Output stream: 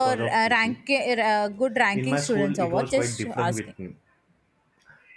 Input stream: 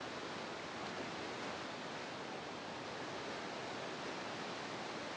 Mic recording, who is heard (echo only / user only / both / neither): neither